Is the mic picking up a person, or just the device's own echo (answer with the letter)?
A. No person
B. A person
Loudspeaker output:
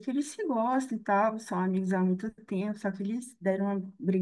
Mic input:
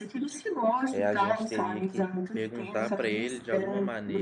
B